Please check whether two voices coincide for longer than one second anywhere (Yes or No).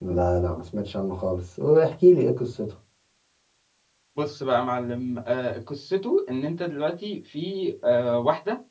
No